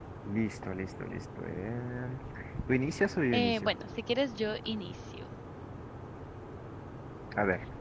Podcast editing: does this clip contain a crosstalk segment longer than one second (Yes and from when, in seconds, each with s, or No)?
No